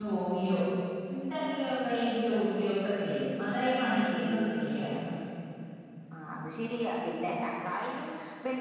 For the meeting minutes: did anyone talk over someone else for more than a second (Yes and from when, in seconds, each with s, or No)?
No